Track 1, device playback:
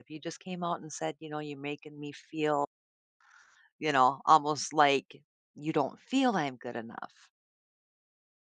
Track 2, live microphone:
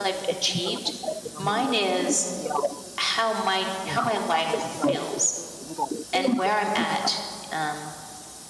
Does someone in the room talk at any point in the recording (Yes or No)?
Yes